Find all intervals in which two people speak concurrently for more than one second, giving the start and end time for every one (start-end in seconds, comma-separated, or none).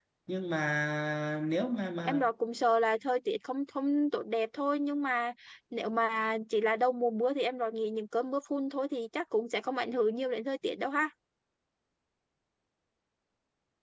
none